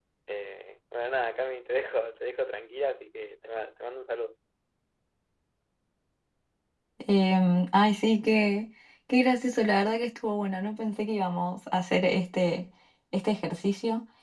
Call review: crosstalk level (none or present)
none